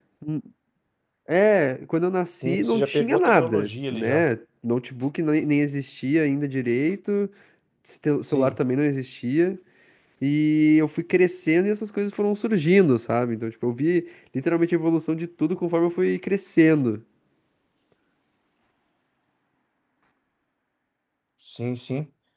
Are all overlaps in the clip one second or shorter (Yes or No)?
No